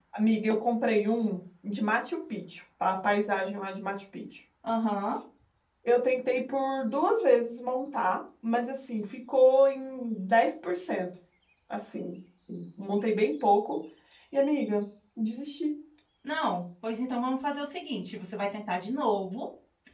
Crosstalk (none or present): none